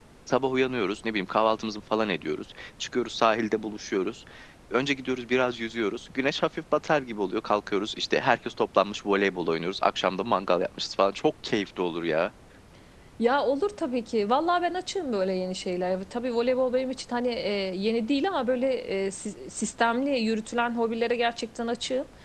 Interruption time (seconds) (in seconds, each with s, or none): none